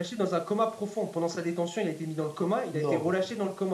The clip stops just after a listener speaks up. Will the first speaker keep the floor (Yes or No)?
Yes